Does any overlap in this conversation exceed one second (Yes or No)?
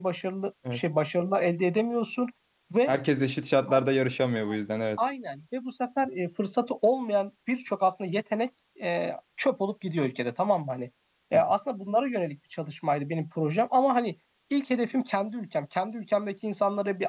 No